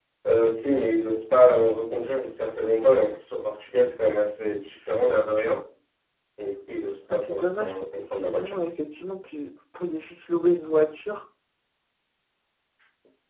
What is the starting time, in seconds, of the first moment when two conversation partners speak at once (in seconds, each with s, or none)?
7.1 s